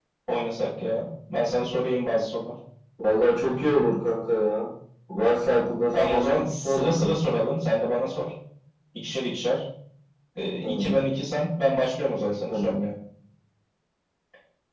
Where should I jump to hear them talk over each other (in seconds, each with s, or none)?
5.9 s